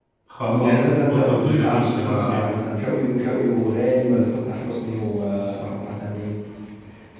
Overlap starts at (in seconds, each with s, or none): 0.6 s